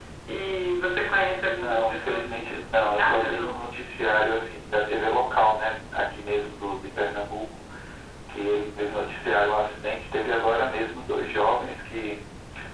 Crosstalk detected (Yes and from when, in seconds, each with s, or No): Yes, from 1.5 s